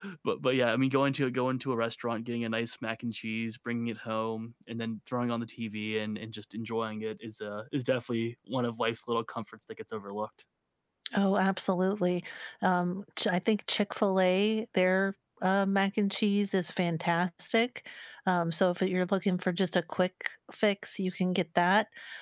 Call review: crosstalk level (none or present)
none